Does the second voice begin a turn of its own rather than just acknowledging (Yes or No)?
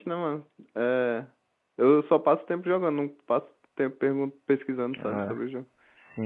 Yes